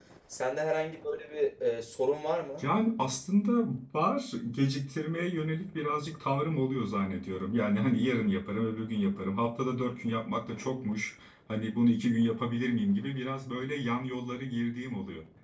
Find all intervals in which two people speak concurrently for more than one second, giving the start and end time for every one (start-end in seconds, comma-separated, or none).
none